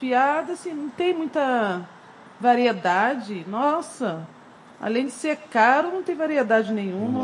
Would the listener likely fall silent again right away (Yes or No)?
No